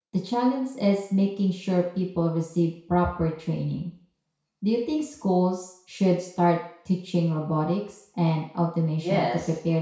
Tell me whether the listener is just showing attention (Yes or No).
No